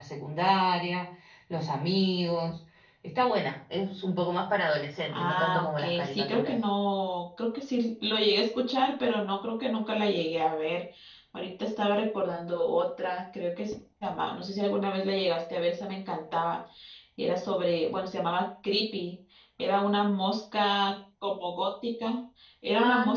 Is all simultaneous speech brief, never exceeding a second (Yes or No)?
No